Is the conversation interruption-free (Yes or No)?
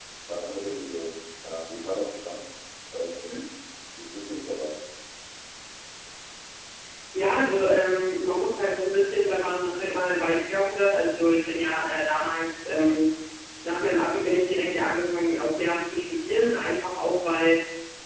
Yes